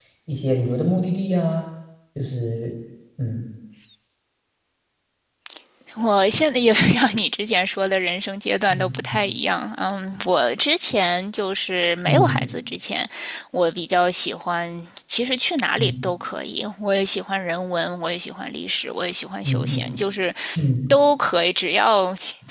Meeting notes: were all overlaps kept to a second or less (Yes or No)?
Yes